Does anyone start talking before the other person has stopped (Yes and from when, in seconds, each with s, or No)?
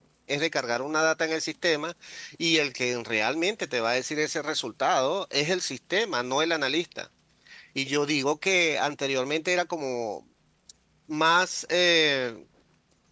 No